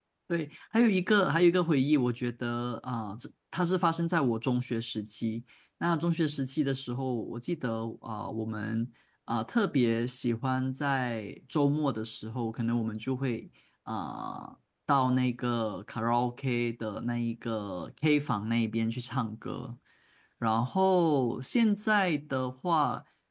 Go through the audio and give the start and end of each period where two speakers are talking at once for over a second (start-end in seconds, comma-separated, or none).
none